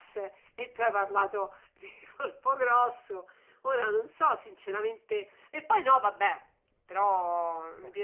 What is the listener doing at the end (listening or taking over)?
listening